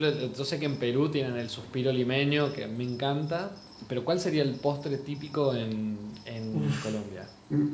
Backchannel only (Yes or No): No